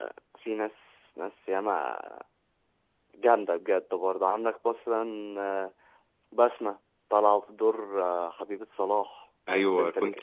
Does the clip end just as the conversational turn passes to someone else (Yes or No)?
Yes